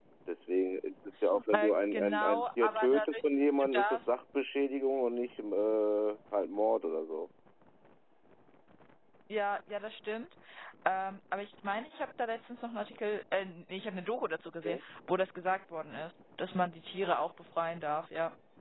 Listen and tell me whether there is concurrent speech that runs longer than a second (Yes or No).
Yes